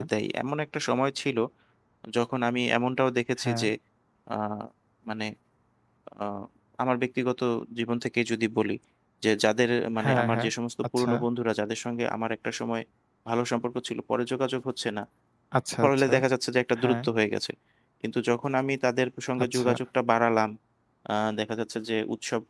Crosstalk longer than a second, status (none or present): none